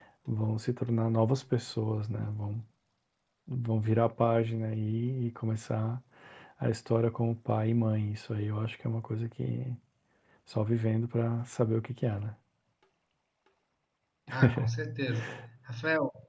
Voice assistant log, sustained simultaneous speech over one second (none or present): none